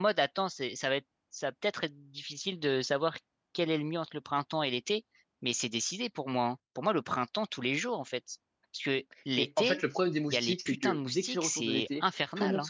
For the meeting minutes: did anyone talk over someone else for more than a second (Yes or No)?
Yes